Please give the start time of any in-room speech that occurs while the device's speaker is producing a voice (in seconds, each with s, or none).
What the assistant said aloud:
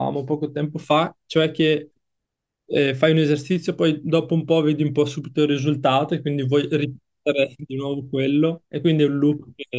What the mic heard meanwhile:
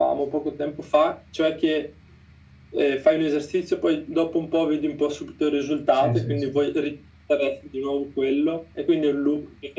5.9 s